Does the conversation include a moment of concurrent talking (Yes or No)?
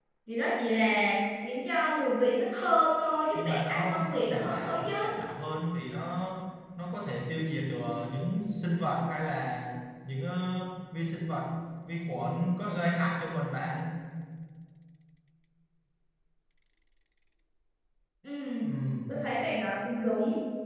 Yes